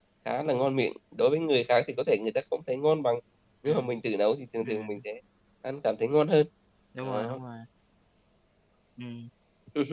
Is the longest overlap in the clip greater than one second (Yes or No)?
No